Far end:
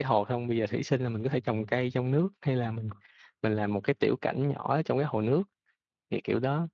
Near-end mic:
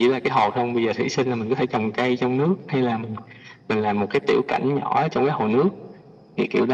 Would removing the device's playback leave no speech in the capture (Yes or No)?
Yes